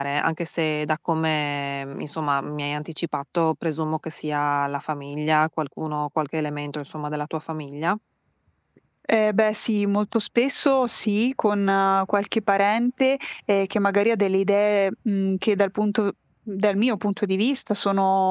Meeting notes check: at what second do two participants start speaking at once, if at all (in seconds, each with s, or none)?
none